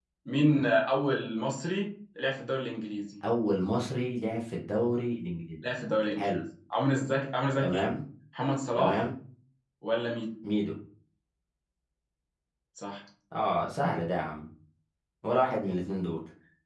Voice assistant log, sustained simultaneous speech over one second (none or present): none